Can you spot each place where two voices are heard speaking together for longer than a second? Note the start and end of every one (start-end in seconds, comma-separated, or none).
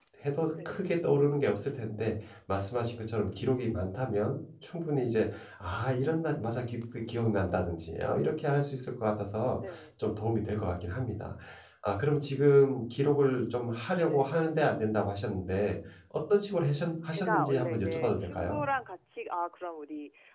17.1-18.6